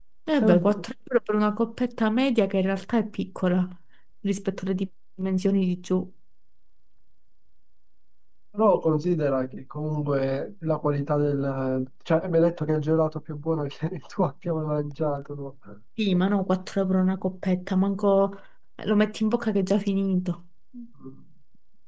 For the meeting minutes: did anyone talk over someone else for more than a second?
No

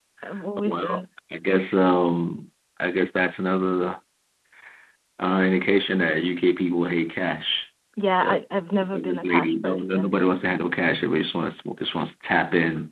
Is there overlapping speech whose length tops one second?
Yes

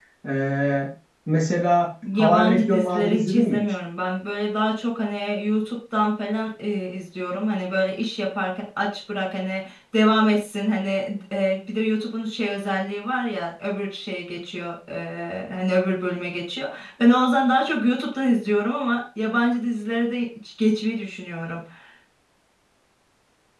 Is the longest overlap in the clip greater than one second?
Yes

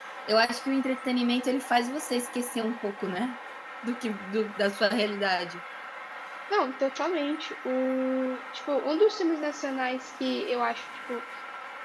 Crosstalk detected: No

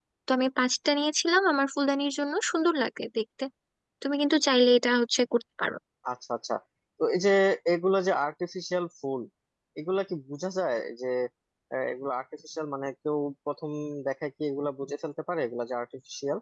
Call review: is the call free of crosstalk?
Yes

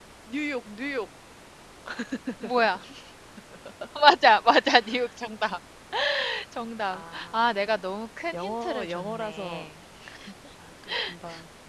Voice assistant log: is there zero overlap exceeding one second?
No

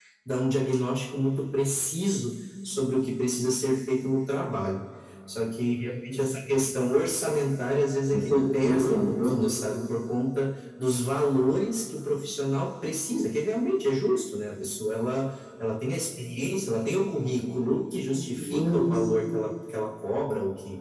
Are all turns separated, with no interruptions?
No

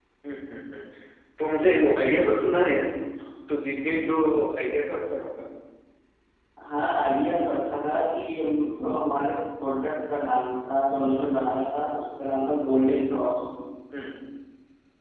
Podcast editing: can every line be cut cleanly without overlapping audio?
Yes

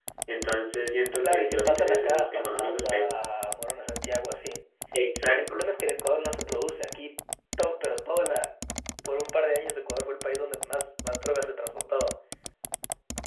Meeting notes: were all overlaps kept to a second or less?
No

